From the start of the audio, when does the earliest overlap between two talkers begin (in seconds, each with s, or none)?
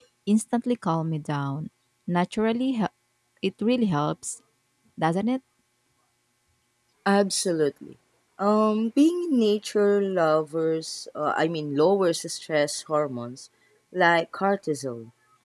none